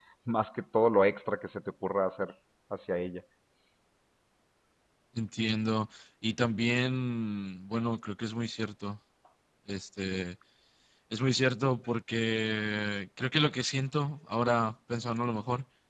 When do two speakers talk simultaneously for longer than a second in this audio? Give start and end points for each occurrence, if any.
none

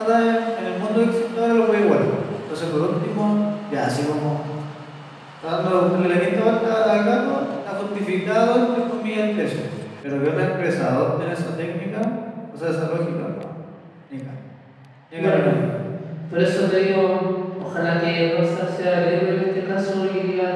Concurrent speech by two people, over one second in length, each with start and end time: none

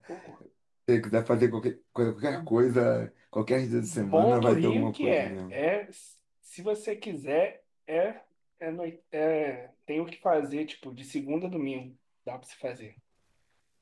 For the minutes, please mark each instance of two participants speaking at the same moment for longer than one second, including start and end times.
3.9-5.5

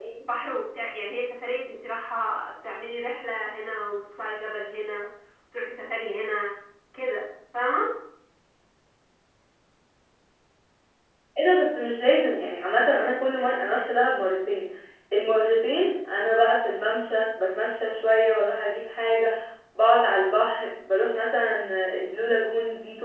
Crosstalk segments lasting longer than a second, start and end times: none

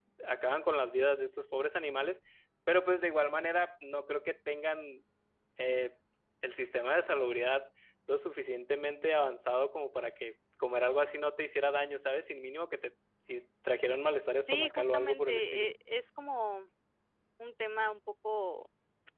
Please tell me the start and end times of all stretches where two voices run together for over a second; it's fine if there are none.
14.4-15.7

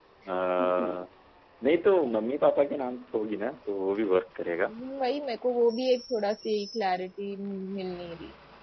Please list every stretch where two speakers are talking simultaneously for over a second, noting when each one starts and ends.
none

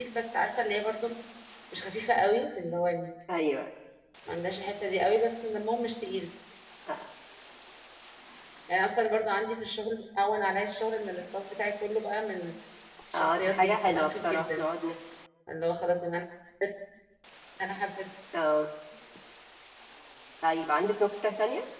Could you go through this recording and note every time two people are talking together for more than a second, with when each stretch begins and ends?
13.1-14.6

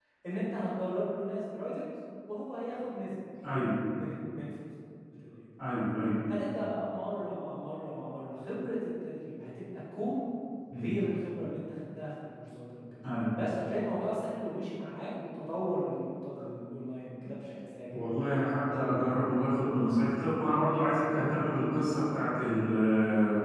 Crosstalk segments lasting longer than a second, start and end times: none

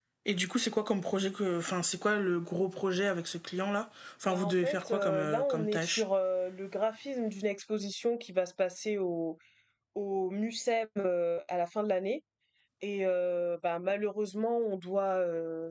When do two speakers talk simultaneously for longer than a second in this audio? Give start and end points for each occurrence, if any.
4.3-6.0

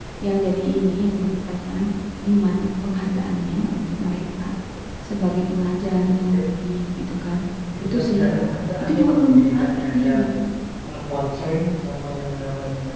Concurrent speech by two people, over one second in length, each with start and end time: 8.8-10.1

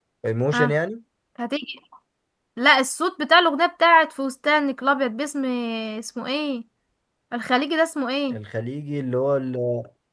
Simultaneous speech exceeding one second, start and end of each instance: none

